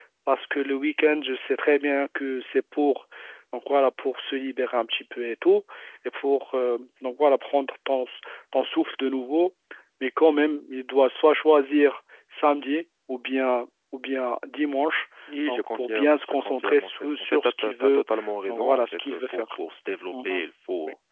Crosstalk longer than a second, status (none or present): present